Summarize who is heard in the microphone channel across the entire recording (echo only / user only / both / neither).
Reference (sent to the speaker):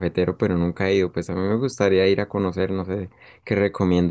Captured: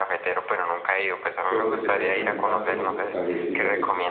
both